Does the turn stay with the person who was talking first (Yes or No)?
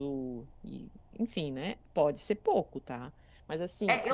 No